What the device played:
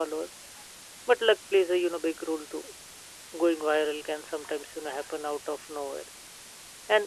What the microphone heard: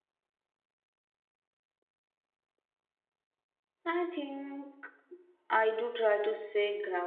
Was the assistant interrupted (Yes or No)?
Yes